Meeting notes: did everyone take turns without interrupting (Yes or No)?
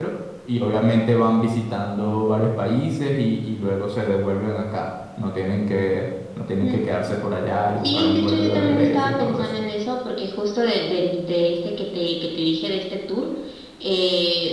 No